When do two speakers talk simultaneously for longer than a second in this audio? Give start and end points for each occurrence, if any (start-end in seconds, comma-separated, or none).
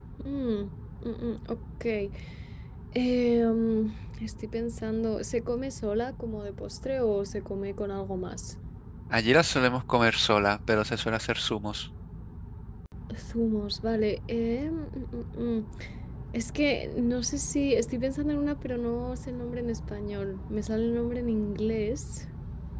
none